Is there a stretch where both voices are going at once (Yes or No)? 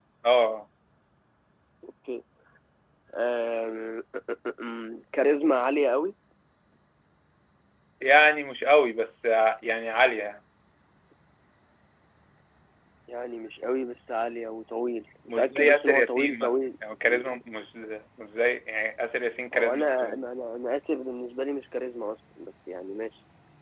Yes